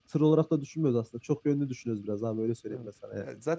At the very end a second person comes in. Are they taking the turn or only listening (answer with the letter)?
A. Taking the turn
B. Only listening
A